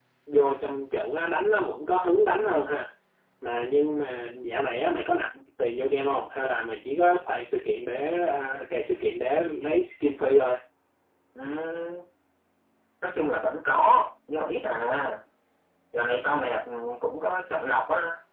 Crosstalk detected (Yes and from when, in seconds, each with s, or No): No